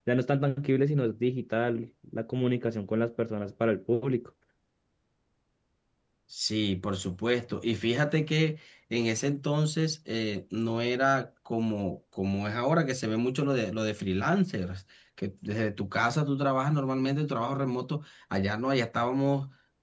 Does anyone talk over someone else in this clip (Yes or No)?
No